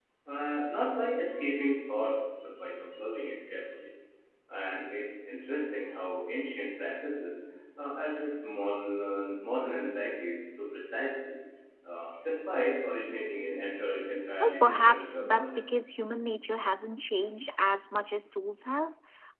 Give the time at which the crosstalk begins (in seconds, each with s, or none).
14.4 s